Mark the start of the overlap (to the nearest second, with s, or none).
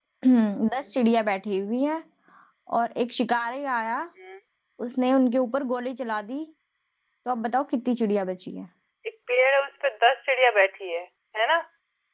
none